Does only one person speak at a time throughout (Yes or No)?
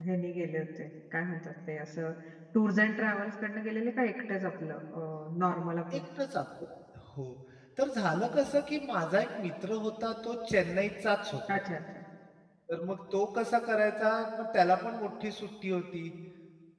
Yes